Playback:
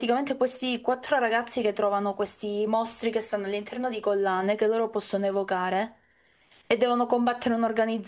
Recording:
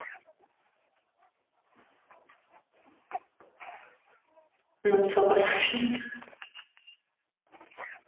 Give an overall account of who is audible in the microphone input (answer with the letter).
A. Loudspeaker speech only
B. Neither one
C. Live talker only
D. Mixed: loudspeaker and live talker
C